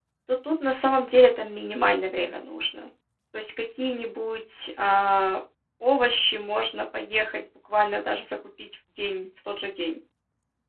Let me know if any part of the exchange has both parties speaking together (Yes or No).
No